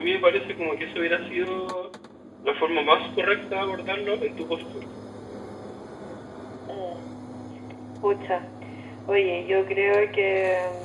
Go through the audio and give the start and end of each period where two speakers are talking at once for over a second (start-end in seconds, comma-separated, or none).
none